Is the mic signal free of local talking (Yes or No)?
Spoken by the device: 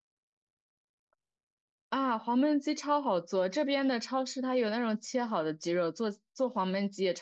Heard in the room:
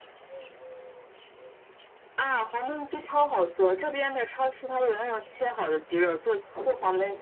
Yes